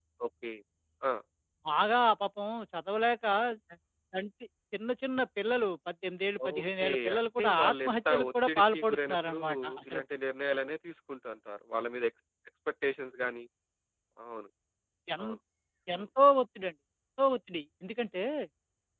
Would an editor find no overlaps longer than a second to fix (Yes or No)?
No